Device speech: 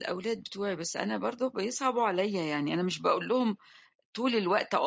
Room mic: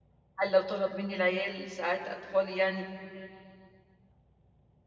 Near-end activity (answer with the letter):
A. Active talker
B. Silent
A